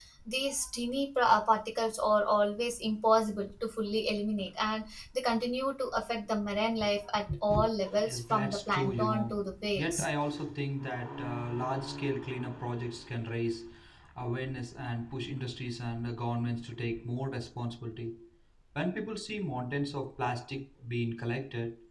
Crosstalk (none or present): present